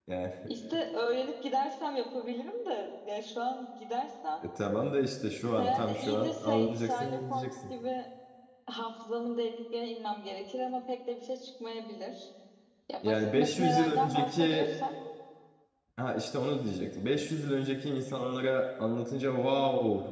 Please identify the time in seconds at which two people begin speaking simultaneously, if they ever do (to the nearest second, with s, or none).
6 s